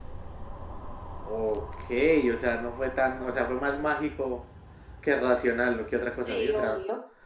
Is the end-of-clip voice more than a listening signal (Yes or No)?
No